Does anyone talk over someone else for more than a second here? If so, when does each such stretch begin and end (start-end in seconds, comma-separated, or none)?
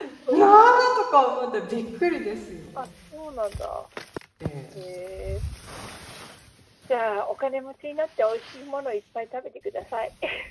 none